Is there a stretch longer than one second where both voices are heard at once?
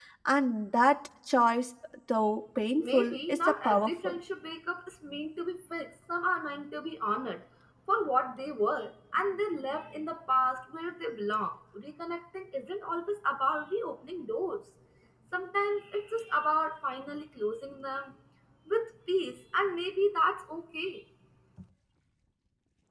Yes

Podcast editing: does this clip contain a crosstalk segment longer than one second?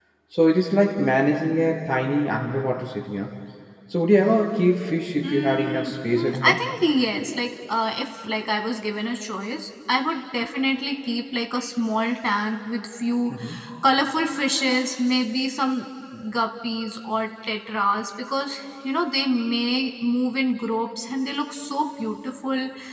Yes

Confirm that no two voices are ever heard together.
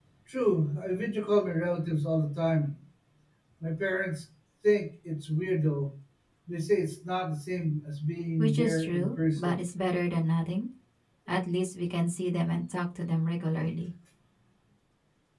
No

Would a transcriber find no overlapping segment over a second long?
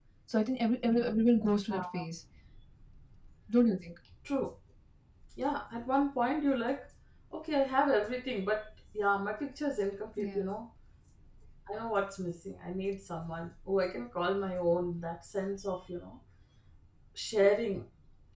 Yes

